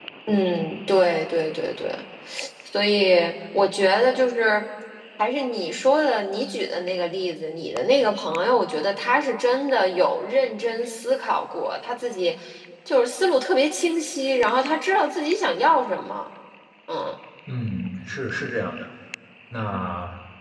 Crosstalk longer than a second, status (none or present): none